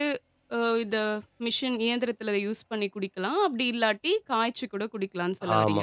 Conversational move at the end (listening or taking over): taking over